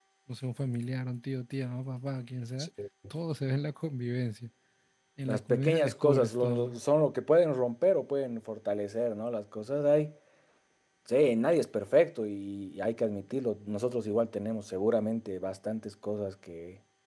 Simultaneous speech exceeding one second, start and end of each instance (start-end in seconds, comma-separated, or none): 5.3-6.7